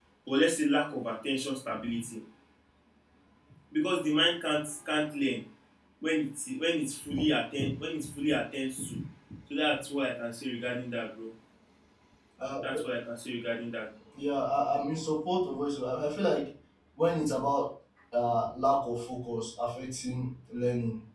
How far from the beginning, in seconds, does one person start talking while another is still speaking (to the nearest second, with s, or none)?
none